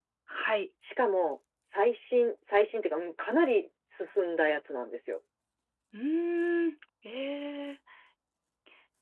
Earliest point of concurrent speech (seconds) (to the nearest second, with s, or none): none